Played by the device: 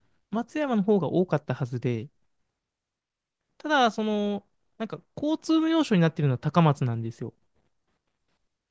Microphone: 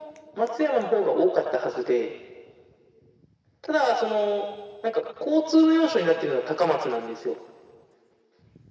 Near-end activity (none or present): none